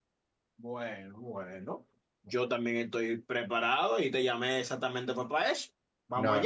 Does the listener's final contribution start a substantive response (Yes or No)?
Yes